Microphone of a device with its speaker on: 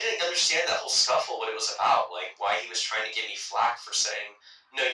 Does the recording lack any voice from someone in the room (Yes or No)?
Yes